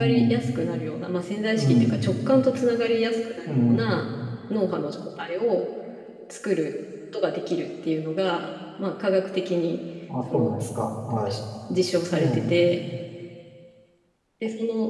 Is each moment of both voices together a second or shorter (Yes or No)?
Yes